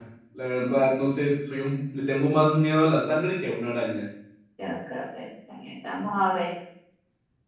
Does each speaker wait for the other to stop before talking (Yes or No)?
Yes